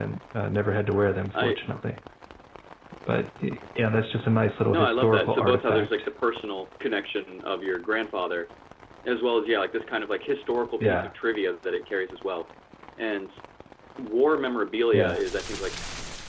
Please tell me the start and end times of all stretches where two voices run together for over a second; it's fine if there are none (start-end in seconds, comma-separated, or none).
4.7-6.1